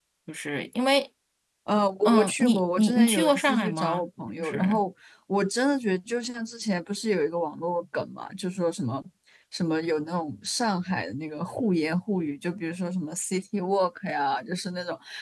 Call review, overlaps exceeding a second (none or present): present